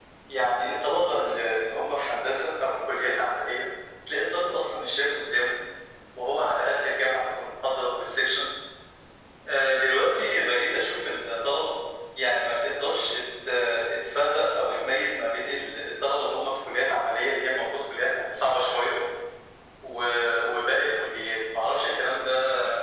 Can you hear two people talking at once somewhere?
No

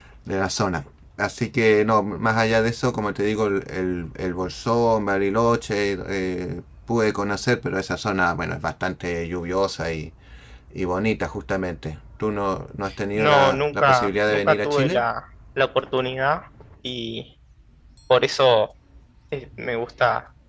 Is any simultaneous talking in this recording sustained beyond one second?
Yes, from 13.2 s

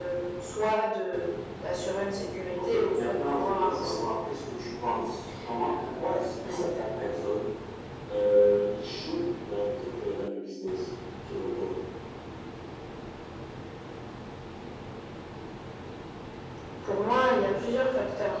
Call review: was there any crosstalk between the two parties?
Yes, from 2.6 s

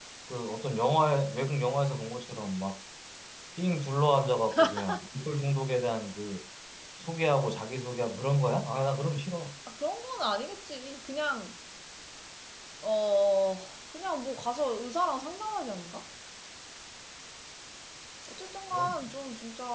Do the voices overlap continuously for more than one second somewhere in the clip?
No

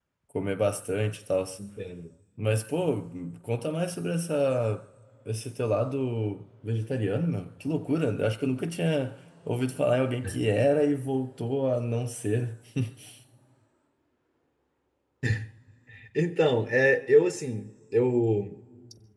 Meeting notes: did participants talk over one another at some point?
No

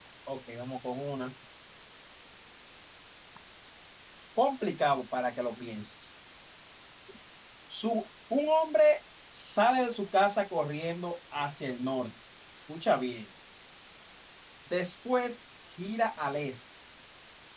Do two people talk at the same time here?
No

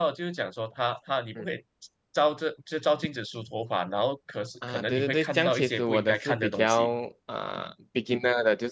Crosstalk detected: Yes, from 4.6 s

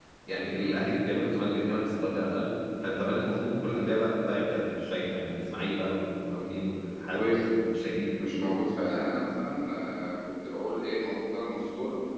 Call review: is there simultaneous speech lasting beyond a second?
No

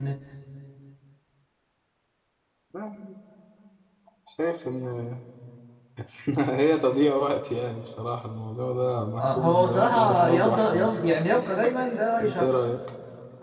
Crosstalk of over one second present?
Yes, from 9.2 s

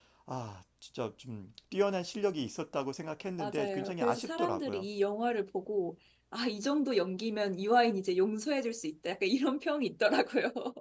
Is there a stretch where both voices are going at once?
Yes, from 3.4 s

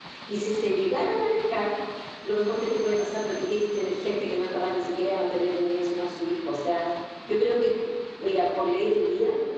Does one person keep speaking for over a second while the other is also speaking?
No

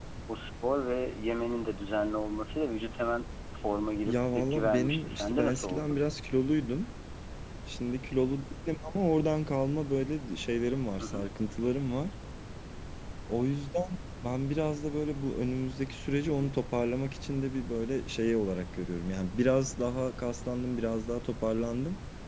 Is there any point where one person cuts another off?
Yes, from 4.1 s

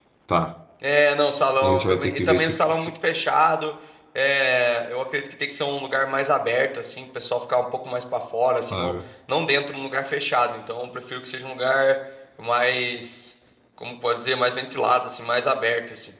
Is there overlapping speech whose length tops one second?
Yes, from 1.6 s

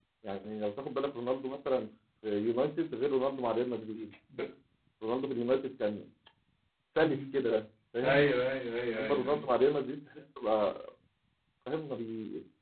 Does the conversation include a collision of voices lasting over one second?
No

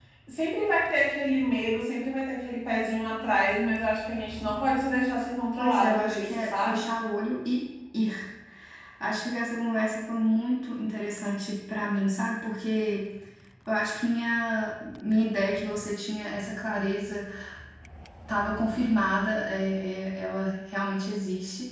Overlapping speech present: Yes, from 5.6 s

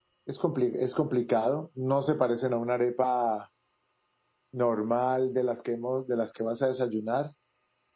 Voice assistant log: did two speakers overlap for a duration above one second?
No

